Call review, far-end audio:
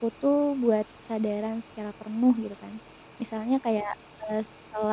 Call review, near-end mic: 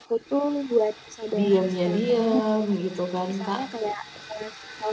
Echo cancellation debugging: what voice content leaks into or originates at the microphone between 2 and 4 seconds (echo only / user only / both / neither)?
both